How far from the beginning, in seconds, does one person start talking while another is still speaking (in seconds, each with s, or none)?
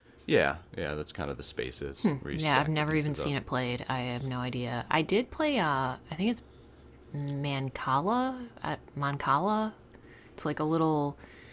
2.0 s